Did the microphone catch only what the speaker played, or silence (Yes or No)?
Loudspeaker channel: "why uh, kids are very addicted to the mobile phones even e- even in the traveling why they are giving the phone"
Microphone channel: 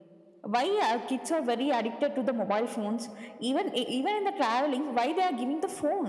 Yes